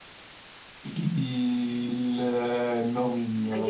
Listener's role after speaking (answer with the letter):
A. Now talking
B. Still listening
A